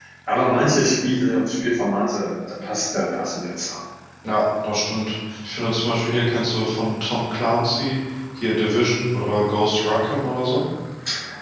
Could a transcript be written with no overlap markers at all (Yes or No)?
Yes